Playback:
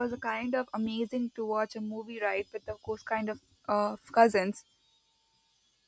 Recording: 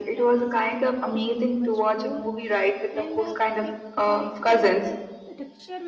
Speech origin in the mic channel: both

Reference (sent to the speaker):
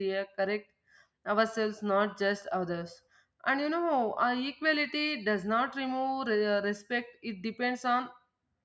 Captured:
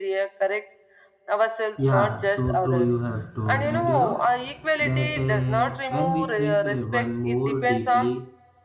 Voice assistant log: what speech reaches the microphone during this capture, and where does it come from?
both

